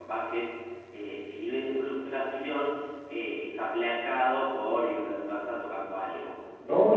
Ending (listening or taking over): taking over